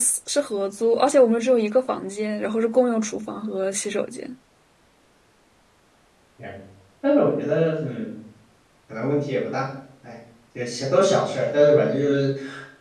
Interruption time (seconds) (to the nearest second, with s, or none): none